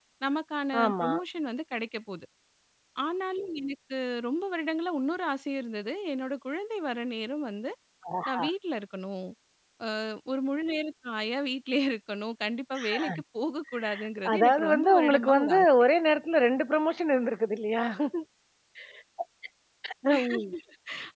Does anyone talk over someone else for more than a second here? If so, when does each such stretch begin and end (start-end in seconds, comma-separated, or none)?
14.3-15.7